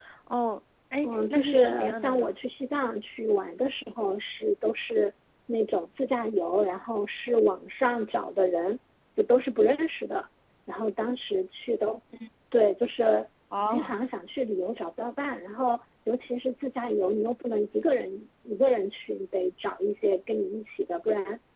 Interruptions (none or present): present